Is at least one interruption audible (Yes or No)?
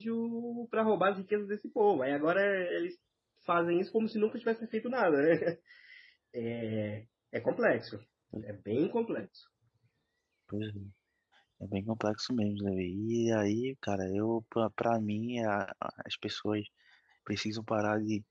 No